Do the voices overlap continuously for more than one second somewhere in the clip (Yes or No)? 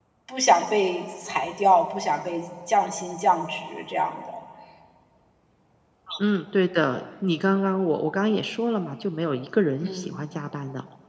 No